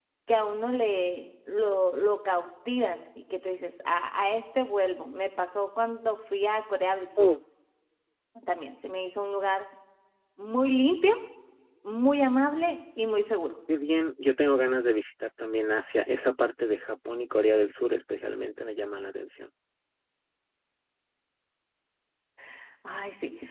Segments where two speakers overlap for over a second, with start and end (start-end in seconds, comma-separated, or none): none